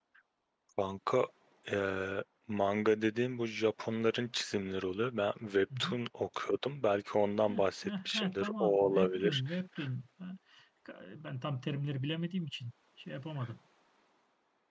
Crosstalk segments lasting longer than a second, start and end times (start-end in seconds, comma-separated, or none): 7.5-9.4